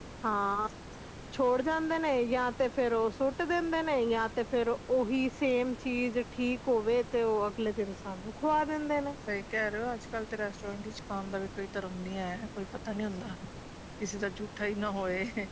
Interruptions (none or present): none